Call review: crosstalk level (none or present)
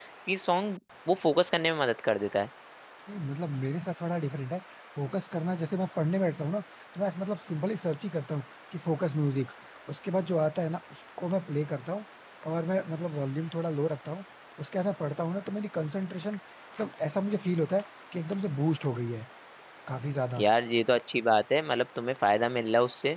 none